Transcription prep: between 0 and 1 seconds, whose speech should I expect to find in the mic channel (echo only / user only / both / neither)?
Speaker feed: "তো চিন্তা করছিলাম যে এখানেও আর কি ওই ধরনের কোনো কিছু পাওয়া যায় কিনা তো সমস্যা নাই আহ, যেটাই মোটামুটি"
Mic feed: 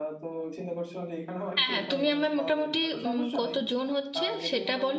echo only